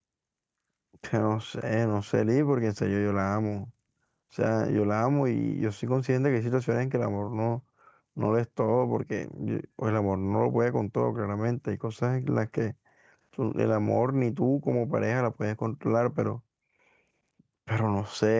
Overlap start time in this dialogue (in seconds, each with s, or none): none